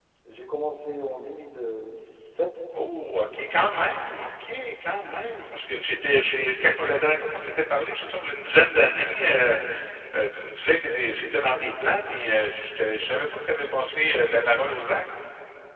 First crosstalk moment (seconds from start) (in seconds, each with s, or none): none